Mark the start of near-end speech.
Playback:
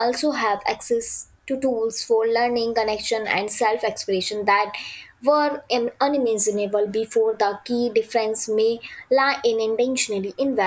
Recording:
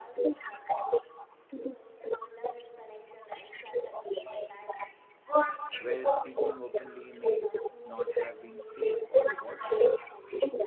5.8 s

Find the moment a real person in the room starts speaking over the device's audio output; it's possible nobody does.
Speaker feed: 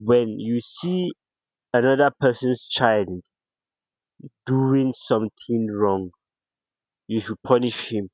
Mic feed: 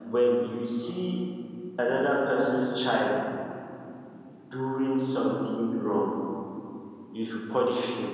none

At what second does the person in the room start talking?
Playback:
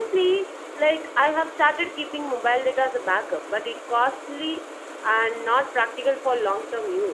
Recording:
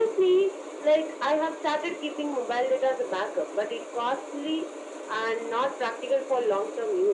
none

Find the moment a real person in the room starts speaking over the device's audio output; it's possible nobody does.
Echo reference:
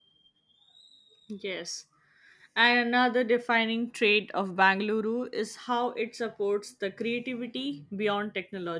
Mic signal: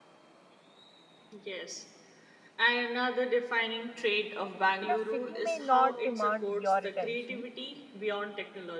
4.8 s

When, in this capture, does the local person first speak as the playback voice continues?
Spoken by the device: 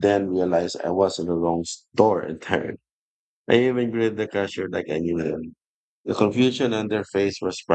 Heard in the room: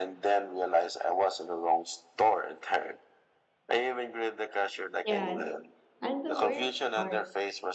5.0 s

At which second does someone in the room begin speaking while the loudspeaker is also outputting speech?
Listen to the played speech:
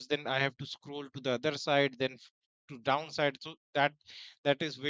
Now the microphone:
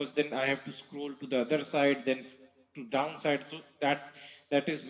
none

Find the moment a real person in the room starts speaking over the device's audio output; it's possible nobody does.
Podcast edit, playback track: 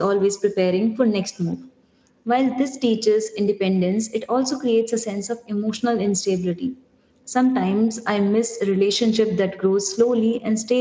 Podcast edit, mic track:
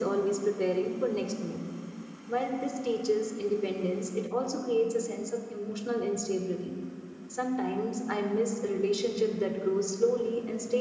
none

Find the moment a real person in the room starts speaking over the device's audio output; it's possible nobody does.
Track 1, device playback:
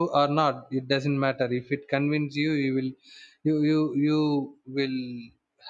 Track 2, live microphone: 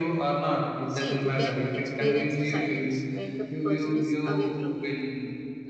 0.8 s

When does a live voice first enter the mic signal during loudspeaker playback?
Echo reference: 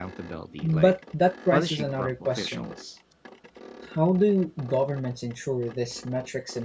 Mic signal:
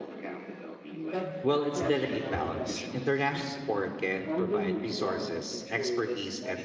1.4 s

